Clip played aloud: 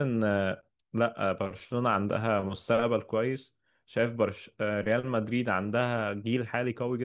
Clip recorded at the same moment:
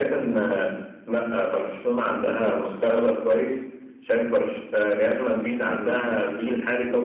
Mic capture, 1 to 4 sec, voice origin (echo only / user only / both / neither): echo only